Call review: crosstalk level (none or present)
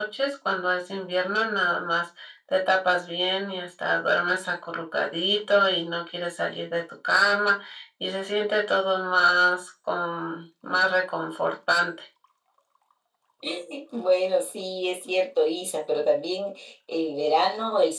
none